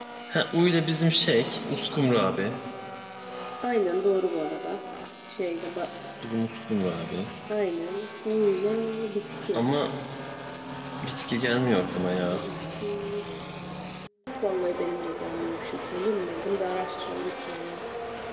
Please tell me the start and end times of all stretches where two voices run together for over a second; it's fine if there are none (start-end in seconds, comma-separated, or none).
none